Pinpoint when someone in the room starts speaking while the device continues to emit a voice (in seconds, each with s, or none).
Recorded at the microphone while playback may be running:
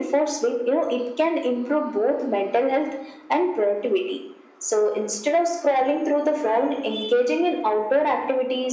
none